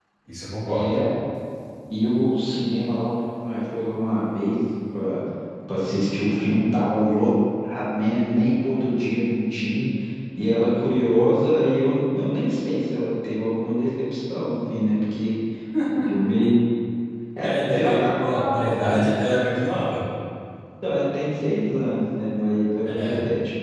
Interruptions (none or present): present